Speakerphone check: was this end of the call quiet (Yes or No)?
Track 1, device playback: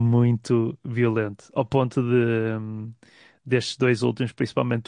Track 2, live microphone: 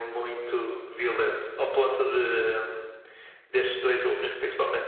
Yes